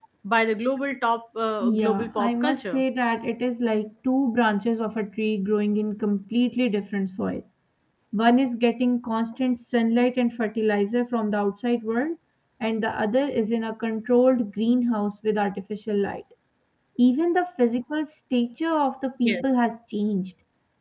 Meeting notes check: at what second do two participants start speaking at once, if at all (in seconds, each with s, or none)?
1.6 s